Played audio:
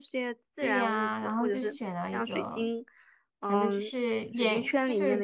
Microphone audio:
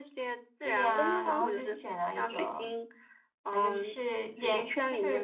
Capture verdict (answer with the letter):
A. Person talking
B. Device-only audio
A